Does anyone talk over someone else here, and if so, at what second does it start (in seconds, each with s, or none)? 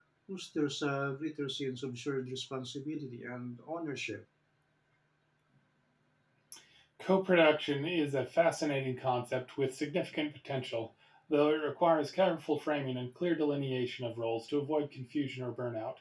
none